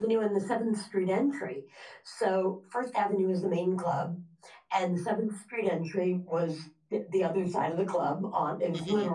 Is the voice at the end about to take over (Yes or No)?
No